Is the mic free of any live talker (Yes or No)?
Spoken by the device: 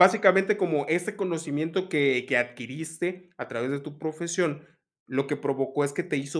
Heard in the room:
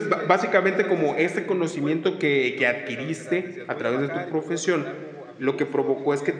No